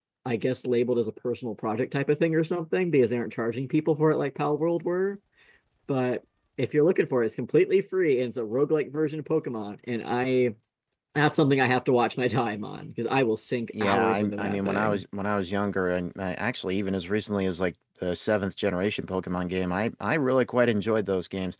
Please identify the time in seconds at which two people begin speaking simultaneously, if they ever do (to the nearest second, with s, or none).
14 s